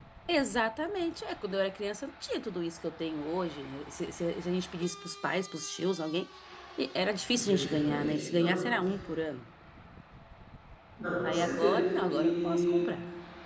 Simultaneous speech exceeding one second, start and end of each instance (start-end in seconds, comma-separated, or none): 7.3-8.6, 11.2-12.8